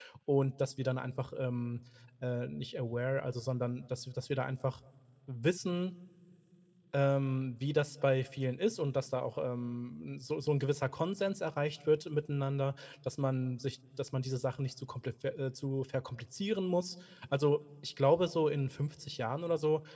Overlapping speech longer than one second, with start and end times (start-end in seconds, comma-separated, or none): none